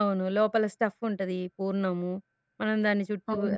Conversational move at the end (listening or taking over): listening